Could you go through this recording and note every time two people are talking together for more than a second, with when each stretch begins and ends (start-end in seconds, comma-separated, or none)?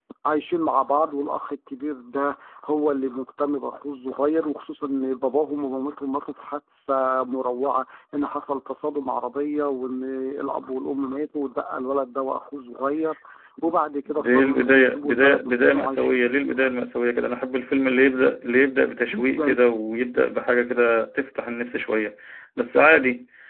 14.1-16.7